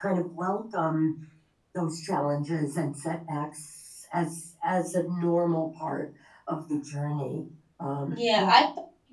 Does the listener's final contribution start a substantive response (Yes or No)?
Yes